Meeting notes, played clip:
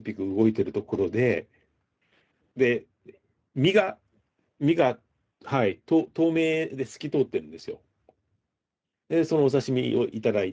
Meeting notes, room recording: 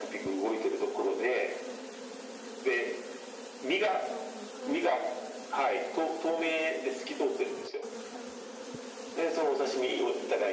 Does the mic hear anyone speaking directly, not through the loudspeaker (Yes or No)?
No